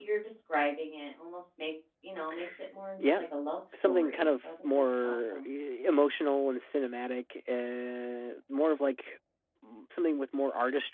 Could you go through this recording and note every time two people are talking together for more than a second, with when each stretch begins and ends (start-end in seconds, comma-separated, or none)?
3.7-5.5